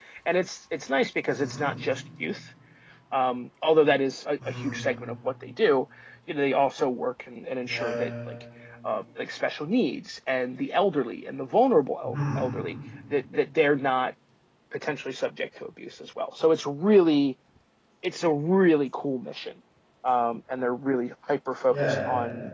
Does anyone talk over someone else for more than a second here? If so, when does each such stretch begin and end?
none

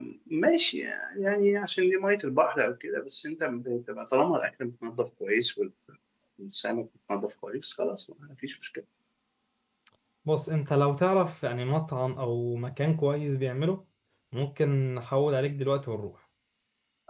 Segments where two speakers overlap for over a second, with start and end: none

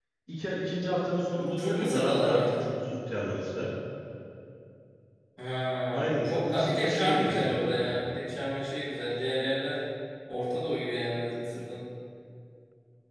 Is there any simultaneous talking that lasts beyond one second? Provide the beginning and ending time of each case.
1.4-2.6, 5.9-7.9

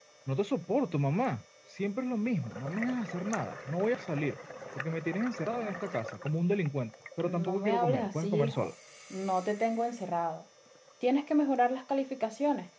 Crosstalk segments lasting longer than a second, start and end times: 7.2-8.7

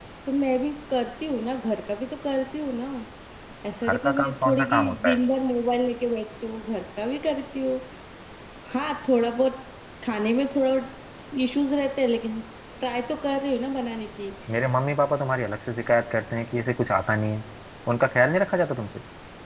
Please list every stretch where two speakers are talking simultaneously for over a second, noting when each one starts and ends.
3.9-5.2

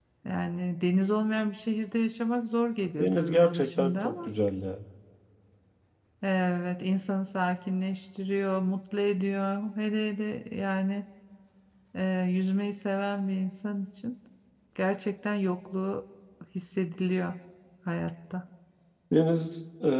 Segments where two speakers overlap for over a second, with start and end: 3.0-4.3

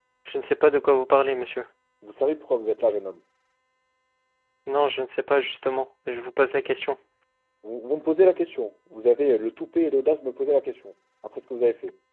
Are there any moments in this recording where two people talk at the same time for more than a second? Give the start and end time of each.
none

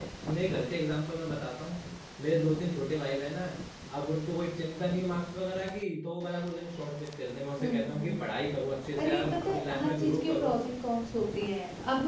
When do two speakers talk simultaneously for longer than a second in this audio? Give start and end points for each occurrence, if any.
9.0-10.6

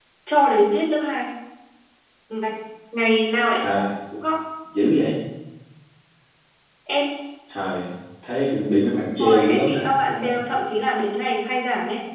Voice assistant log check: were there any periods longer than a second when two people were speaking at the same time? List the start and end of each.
9.2-10.4

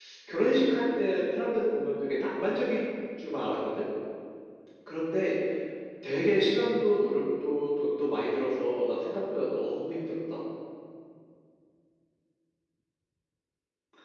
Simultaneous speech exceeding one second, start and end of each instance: none

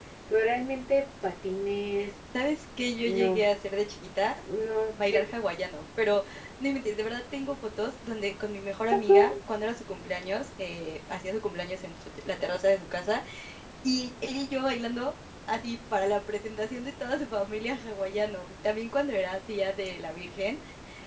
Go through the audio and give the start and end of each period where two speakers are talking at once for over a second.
none

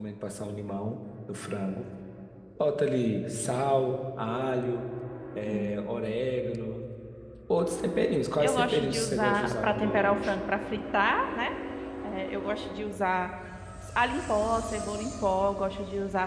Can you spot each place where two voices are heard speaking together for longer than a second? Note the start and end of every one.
8.4-10.3

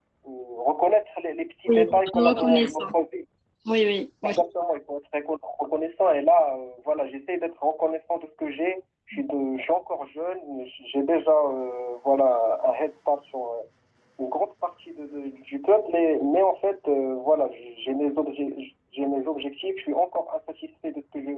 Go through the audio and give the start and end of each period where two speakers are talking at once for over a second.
1.7-2.9

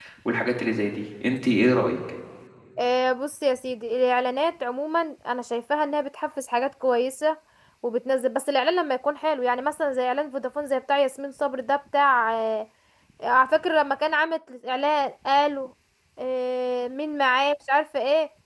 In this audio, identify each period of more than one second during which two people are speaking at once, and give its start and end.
none

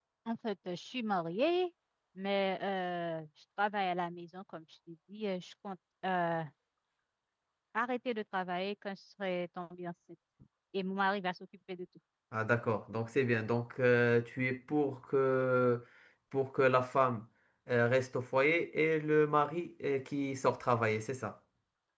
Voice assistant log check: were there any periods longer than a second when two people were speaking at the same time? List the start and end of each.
none

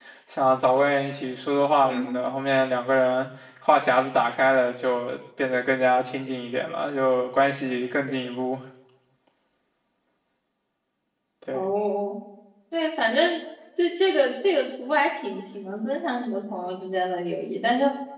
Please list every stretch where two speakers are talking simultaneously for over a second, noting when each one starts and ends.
none

